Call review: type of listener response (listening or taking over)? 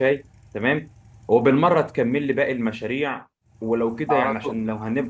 listening